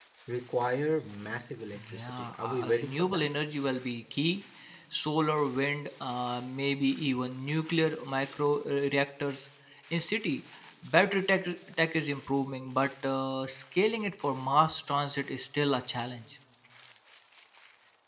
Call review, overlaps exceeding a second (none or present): present